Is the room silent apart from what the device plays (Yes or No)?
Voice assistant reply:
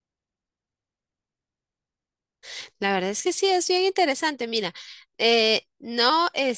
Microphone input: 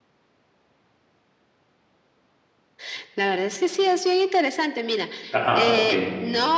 No